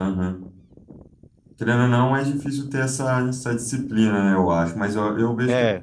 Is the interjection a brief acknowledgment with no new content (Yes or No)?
Yes